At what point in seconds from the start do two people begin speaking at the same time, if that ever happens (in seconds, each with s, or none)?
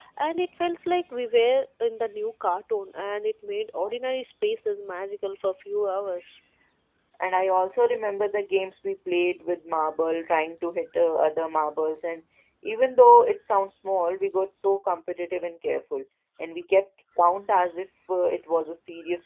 none